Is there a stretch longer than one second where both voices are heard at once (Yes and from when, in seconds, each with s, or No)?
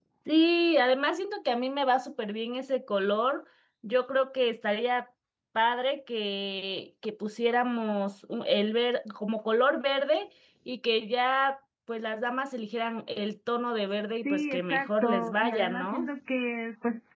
Yes, from 14.2 s